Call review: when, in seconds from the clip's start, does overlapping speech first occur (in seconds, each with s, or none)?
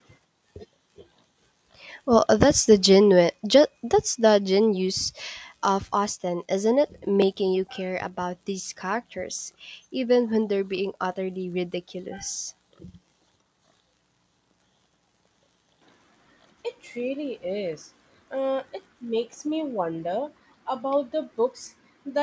none